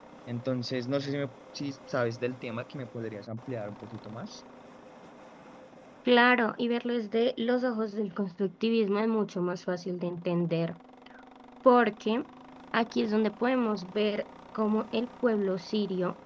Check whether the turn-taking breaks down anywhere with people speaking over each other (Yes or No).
No